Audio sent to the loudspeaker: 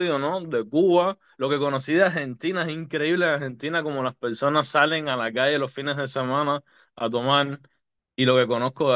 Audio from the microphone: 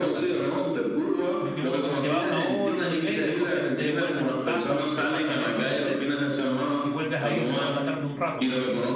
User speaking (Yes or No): Yes